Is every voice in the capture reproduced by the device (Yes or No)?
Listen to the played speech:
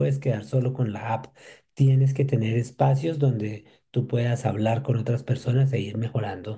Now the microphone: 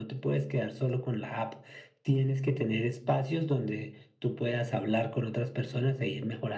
Yes